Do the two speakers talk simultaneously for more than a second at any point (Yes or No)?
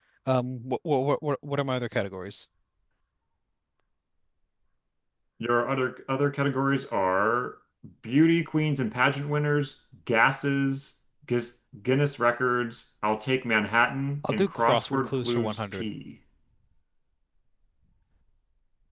Yes